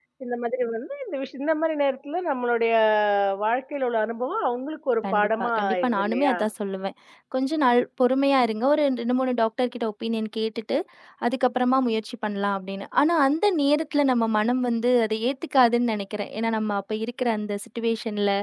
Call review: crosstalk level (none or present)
present